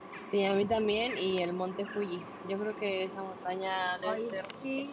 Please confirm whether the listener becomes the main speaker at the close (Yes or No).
Yes